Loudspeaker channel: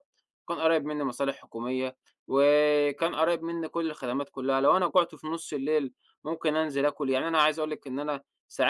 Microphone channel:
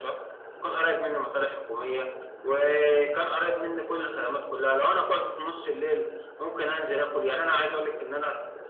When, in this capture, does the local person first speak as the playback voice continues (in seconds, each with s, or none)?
none